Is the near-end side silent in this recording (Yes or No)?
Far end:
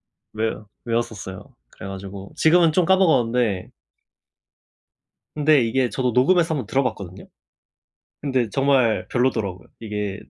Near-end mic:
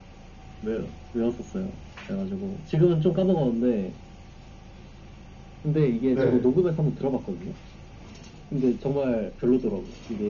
No